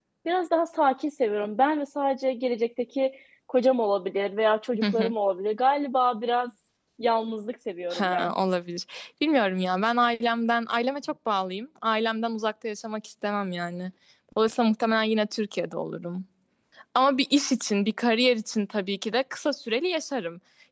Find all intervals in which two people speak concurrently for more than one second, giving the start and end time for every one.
none

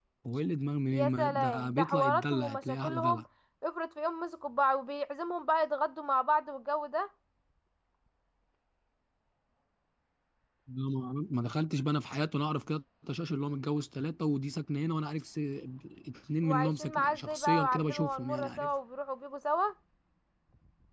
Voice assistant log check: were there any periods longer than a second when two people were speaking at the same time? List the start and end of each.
0.9-3.2, 16.4-18.7

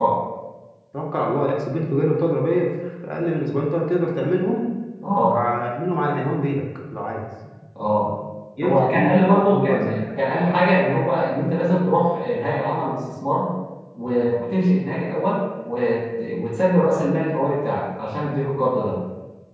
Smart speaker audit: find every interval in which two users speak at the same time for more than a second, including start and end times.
8.6-10.0

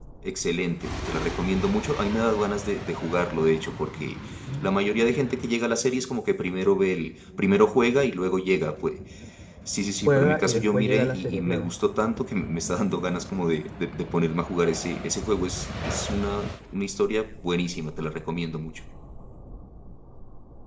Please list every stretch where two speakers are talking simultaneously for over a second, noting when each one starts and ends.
10.1-11.7

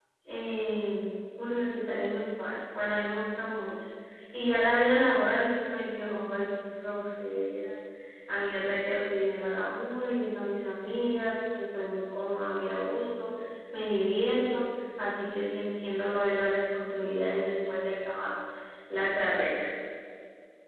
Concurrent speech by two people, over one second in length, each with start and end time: none

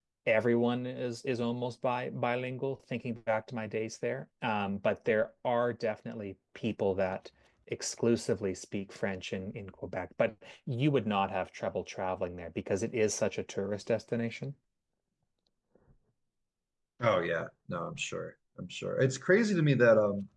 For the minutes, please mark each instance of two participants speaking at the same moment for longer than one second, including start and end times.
none

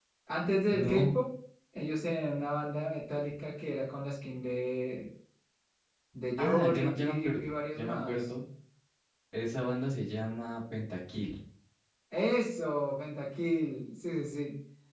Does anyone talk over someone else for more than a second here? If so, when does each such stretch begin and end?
6.4-8.3

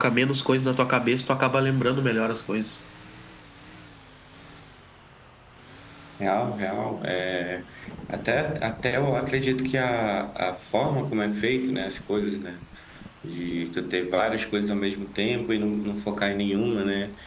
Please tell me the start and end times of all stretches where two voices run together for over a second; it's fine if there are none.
none

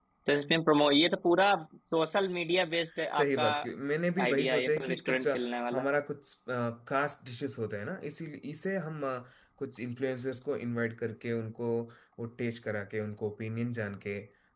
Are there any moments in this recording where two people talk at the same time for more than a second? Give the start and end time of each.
4.2-5.9

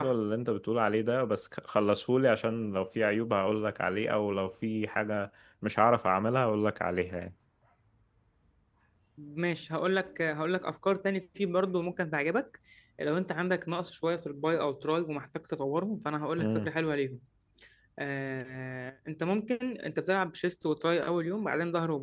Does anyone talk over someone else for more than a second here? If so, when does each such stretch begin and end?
none

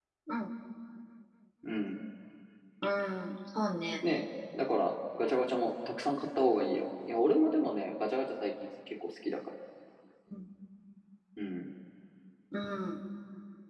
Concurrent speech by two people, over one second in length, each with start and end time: none

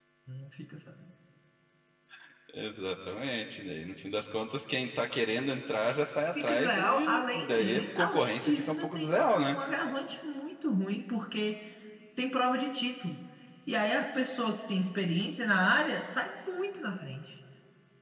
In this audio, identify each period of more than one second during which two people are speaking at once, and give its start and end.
6.4-9.6

